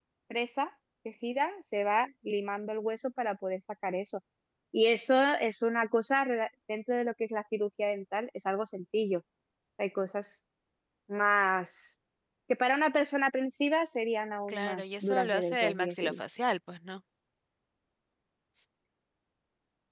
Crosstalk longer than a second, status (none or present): present